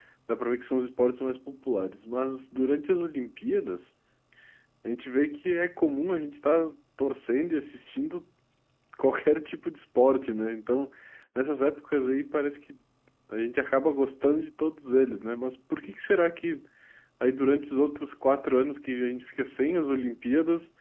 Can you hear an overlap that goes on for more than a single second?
No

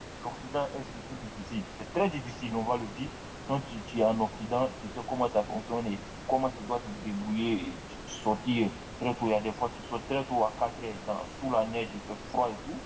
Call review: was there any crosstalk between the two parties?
No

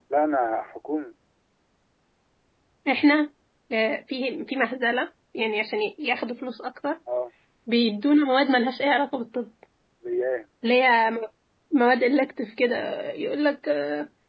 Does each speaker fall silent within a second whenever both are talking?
Yes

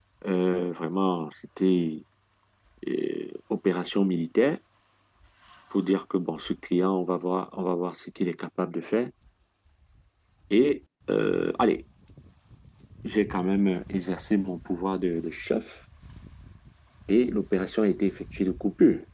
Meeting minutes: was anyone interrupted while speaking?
No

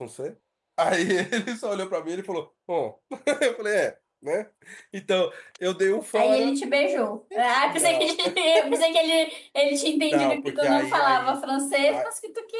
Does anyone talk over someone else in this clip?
Yes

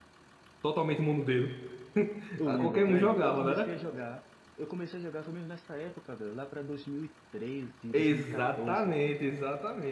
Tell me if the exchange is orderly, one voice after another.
No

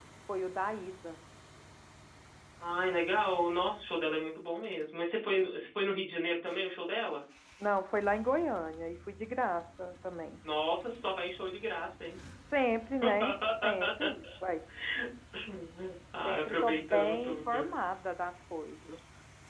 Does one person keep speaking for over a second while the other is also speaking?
Yes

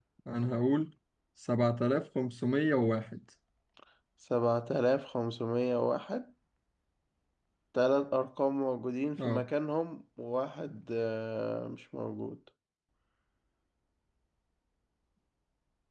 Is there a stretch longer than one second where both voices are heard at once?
No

